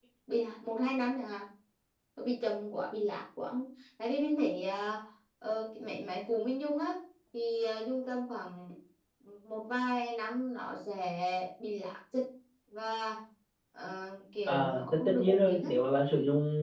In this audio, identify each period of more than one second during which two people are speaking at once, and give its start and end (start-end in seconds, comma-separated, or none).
14.5-15.7